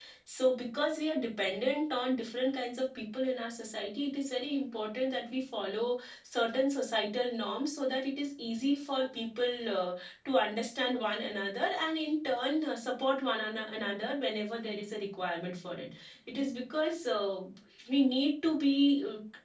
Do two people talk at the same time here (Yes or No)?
No